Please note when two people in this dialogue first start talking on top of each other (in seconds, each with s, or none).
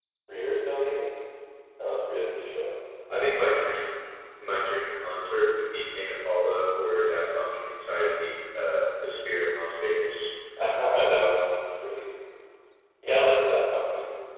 none